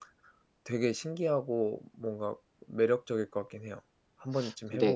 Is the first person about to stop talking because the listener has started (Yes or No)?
Yes